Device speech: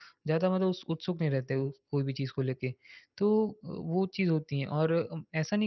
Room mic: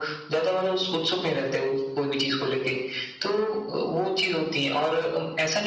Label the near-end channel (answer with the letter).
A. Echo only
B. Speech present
A